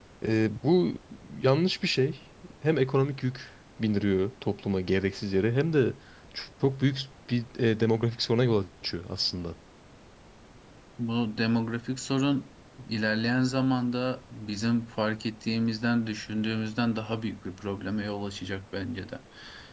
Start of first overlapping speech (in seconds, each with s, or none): none